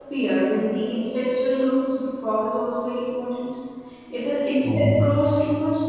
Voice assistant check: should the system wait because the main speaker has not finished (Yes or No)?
Yes